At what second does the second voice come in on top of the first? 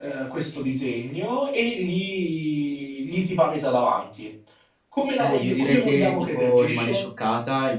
5.2 s

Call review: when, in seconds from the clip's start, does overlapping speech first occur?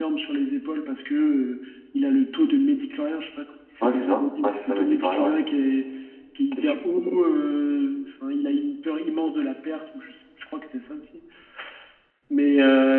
3.8 s

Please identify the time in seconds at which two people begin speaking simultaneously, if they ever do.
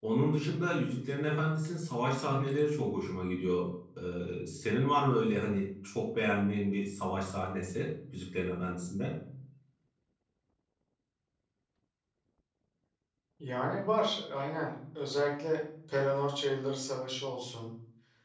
none

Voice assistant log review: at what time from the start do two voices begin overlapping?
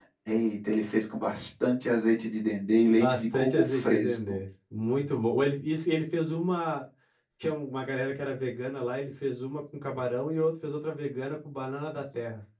3.0 s

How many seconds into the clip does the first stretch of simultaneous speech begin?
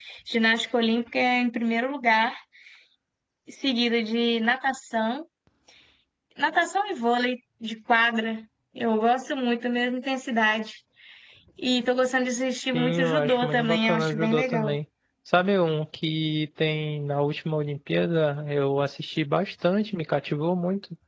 12.7 s

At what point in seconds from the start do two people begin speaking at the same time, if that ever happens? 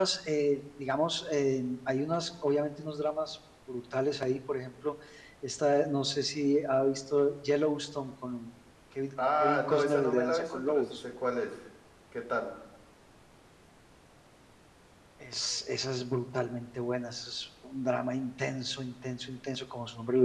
9.2 s

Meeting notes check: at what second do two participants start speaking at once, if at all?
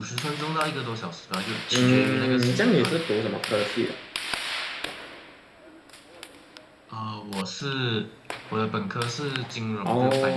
1.7 s

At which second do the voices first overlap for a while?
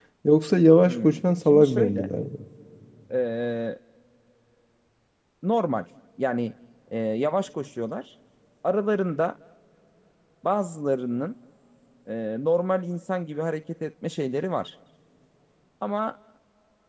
0.9 s

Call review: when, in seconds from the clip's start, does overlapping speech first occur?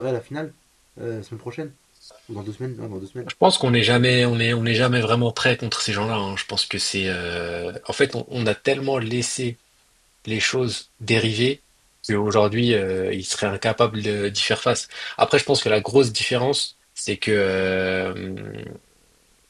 none

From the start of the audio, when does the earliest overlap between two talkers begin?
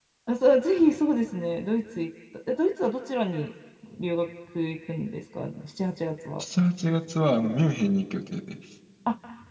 none

